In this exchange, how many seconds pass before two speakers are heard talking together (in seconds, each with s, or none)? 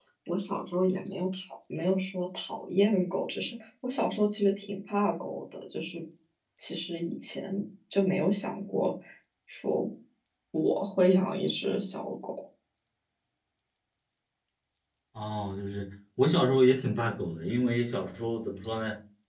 none